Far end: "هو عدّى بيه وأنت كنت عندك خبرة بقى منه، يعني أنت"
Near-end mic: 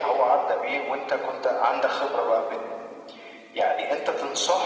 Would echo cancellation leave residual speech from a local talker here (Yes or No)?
No